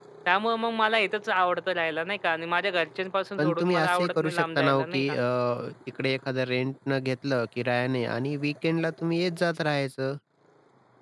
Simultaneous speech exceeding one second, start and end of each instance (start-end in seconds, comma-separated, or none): 3.4-5.2